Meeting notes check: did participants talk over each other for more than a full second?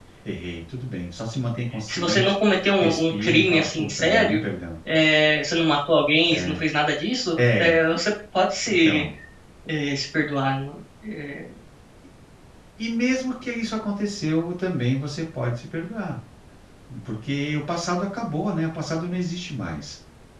Yes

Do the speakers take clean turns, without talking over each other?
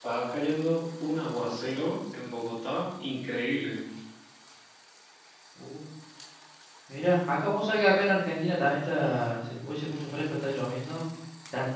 Yes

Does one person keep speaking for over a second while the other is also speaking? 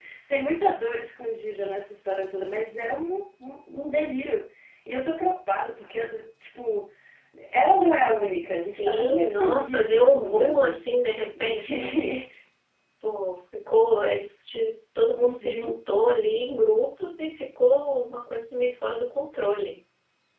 Yes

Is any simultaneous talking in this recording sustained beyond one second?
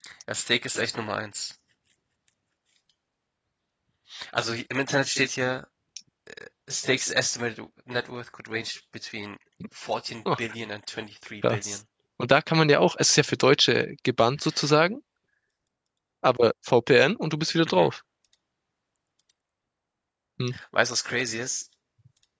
No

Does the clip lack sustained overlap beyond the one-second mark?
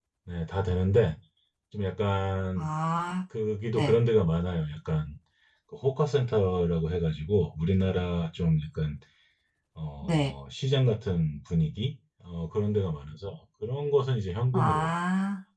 Yes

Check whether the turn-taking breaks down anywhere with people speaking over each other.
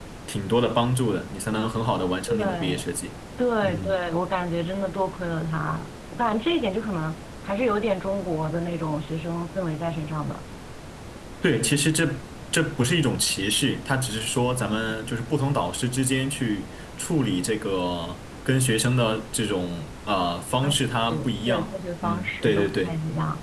Yes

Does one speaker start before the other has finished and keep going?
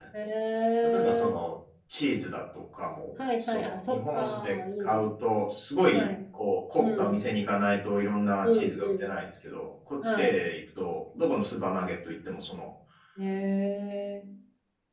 Yes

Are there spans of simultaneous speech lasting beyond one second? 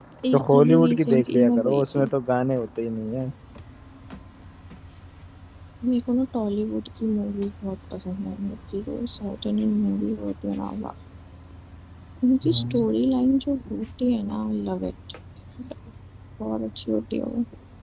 Yes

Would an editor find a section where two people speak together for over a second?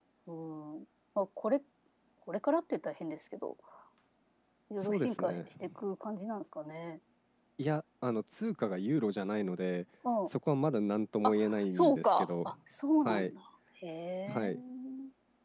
Yes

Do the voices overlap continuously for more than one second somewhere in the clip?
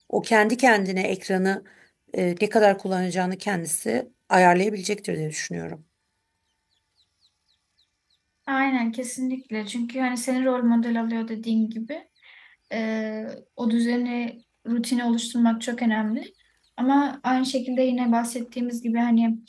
No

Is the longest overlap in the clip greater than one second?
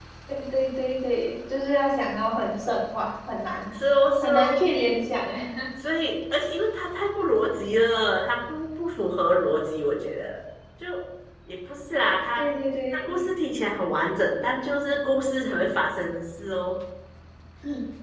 No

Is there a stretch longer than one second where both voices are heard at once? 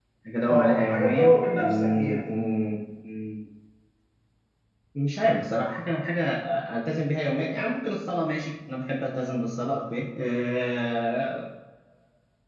Yes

